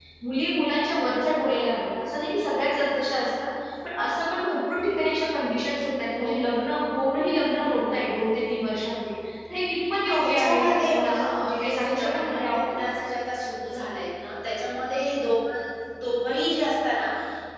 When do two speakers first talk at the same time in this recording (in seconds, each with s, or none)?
10.0 s